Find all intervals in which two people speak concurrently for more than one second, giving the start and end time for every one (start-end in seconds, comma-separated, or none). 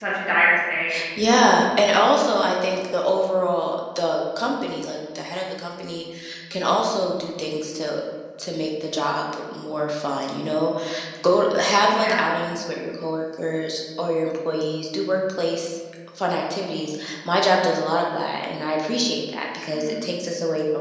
none